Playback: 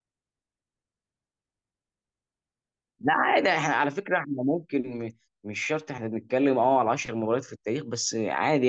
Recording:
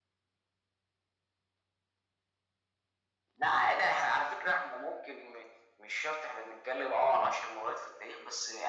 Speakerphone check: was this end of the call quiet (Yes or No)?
Yes